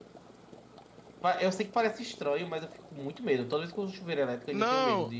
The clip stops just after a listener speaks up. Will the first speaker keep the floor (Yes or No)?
No